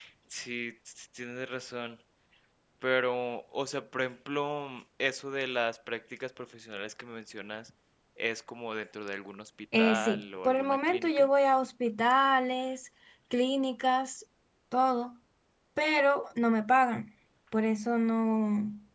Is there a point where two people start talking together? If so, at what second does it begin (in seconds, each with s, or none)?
9.7 s